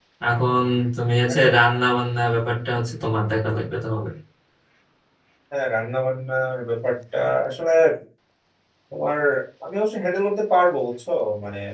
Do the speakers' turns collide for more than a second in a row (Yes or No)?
No